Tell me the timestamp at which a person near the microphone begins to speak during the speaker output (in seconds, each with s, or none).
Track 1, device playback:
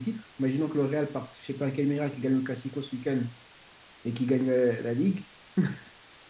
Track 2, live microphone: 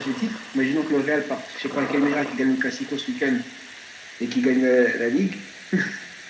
none